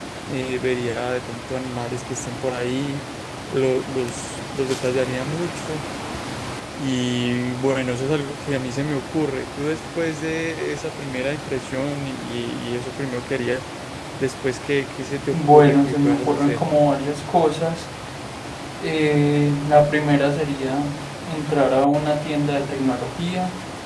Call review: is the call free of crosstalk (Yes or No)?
No